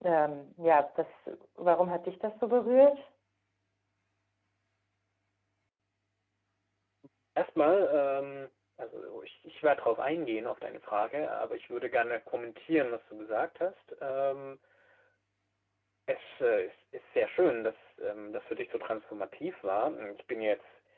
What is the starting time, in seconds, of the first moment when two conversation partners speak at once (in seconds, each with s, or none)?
none